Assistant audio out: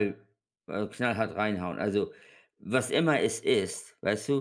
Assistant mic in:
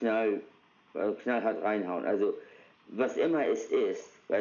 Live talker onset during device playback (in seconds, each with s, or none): none